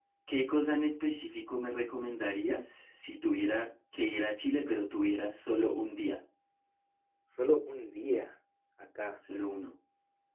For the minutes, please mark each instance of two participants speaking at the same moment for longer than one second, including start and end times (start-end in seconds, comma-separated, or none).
none